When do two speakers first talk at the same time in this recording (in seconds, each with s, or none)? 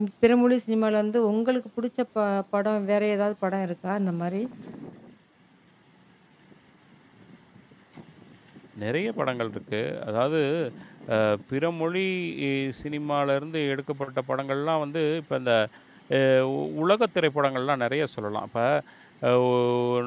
none